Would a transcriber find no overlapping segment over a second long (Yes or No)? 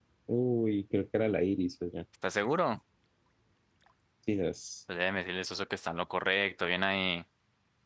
Yes